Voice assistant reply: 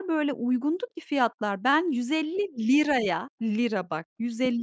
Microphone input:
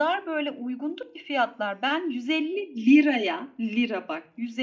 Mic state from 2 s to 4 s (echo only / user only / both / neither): echo only